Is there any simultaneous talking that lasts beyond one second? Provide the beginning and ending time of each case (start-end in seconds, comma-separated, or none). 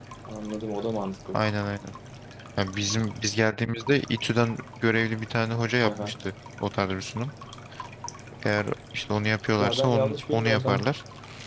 9.6-10.9